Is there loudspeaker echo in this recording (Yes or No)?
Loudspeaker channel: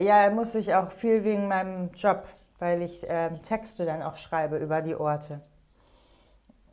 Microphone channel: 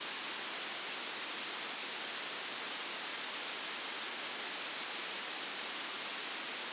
No